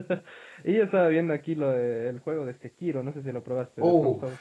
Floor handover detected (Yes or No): Yes